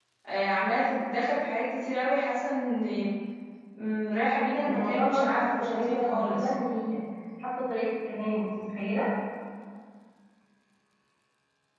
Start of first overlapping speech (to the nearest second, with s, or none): 5 s